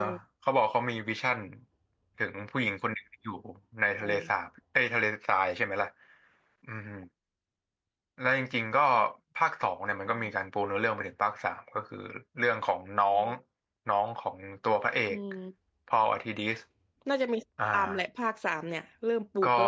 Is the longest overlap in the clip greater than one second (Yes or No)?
No